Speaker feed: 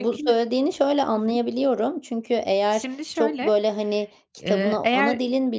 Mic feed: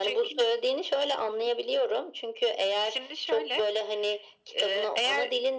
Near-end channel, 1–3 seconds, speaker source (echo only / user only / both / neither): echo only